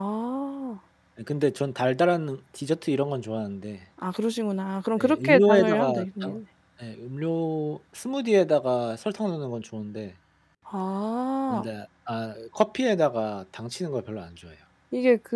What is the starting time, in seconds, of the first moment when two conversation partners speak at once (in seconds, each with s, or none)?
5.0 s